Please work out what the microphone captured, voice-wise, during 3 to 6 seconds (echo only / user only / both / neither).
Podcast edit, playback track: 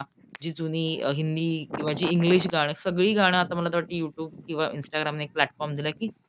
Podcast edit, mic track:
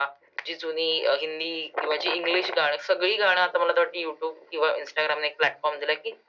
echo only